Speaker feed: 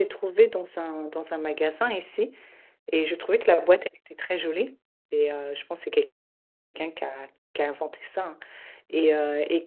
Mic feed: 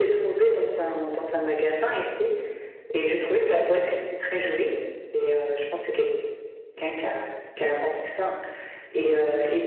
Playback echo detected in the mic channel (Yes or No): Yes